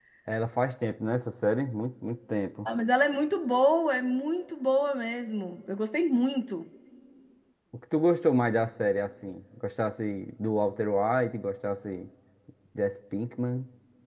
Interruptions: none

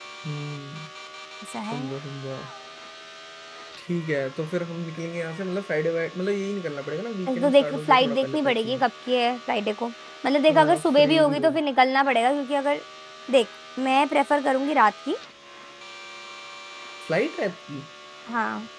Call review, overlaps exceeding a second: present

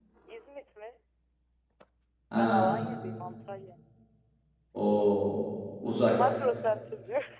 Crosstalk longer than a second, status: none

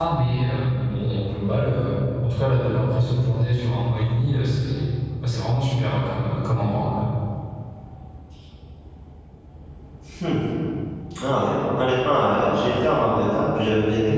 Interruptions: none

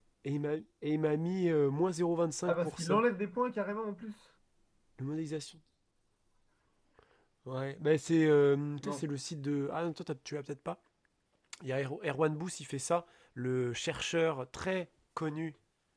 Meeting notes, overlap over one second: none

